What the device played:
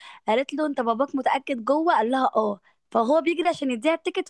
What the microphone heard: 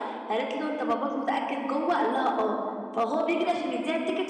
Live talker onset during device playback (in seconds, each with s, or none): none